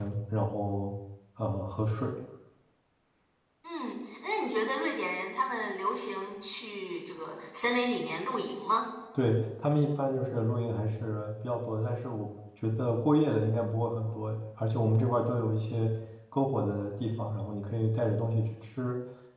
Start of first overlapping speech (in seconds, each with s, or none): none